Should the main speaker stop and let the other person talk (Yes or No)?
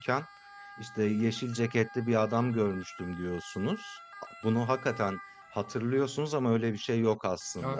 Yes